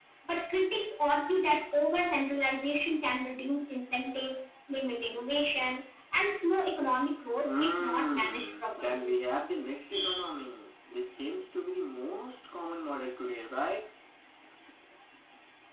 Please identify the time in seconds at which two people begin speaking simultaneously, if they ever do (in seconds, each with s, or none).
7.4 s